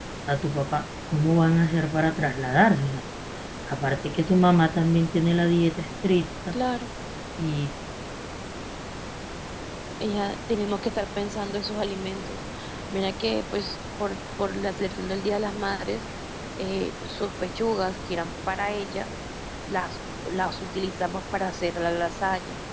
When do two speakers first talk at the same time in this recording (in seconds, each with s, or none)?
none